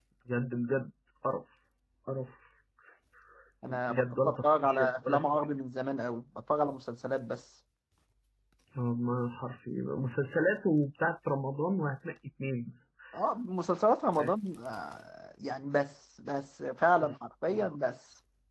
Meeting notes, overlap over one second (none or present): present